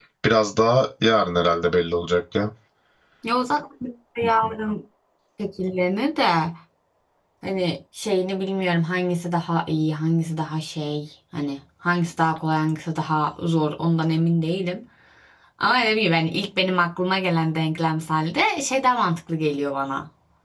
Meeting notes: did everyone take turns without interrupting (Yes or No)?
Yes